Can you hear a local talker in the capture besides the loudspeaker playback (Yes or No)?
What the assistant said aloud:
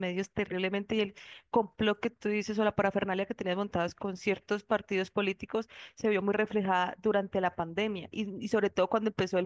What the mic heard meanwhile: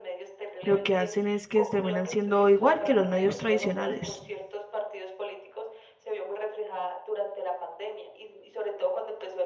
Yes